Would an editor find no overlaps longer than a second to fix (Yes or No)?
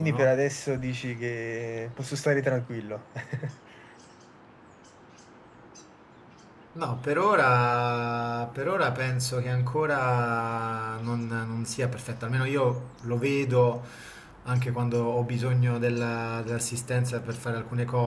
Yes